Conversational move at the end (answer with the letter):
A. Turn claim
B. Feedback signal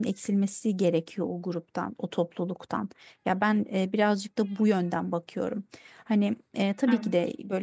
B